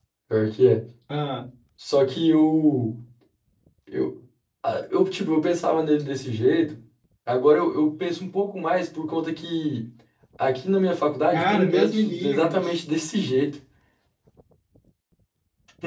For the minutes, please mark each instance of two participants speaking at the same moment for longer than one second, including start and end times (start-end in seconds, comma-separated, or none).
11.3-12.6